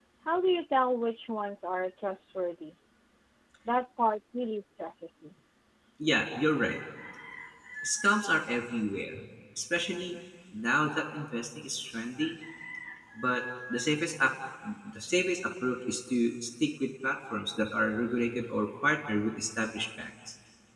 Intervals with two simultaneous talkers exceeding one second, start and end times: none

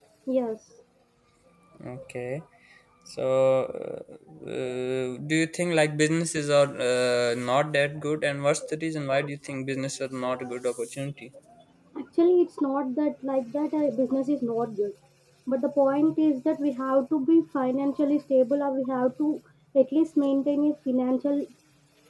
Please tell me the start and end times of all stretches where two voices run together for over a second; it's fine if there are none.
none

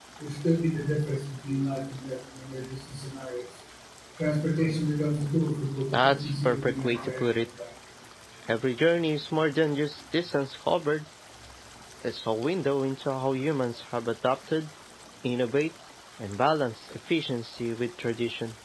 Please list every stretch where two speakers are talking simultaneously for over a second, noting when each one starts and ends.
5.9-7.3

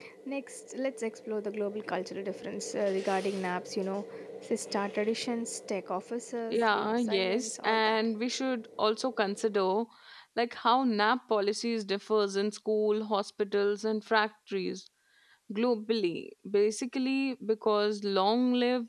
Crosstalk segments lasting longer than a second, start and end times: 6.5-8.1

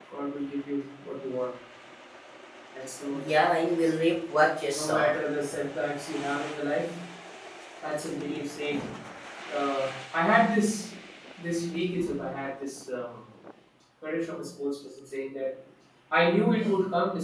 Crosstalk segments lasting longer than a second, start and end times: none

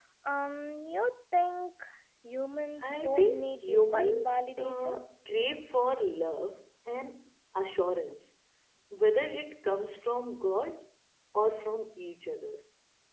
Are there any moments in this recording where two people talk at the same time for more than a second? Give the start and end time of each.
2.8-4.9

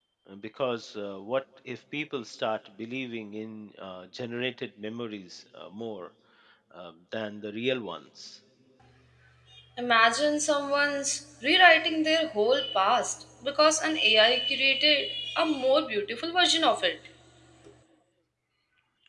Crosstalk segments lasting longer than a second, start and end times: none

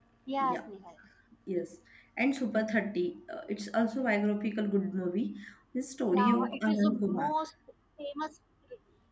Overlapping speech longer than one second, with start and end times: 6.1-7.3

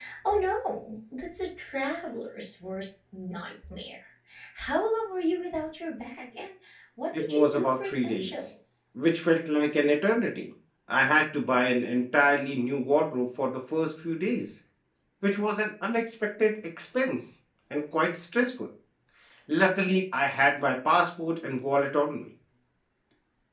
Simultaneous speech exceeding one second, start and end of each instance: 7.2-8.5

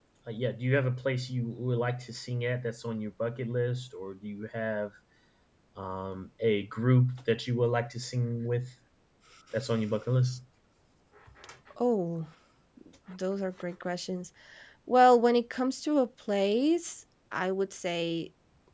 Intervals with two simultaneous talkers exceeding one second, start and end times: none

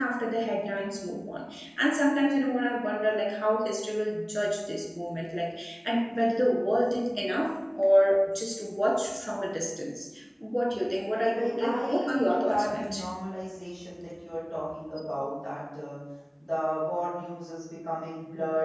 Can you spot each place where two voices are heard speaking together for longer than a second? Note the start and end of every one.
11.4-13.1

